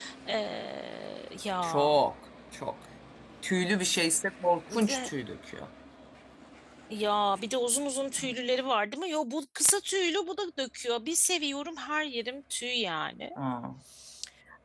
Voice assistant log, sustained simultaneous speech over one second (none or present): none